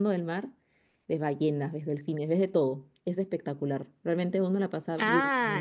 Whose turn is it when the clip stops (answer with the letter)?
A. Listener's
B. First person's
A